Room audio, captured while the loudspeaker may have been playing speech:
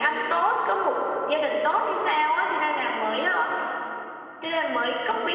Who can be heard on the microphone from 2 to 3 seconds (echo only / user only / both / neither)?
echo only